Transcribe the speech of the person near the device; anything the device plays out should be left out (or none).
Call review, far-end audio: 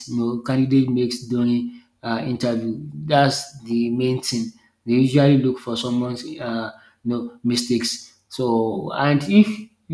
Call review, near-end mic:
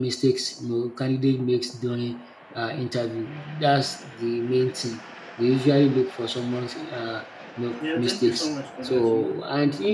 Yeah, thank you so much for that. You know,